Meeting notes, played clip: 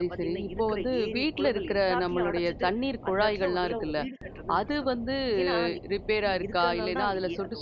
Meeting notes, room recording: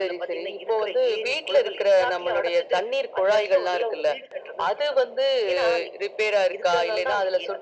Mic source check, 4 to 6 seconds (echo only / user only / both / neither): echo only